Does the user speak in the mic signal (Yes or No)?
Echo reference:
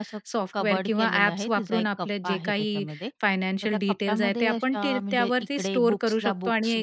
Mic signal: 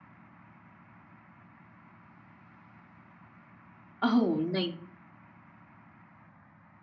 Yes